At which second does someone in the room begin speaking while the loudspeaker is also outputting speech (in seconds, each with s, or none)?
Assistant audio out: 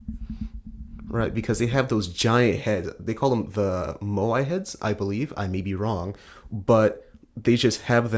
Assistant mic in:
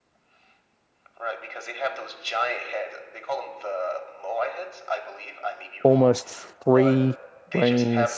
5.8 s